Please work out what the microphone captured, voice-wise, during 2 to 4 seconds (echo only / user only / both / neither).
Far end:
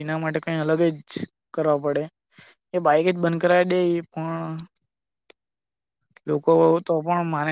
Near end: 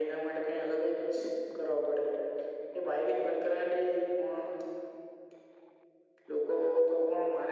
echo only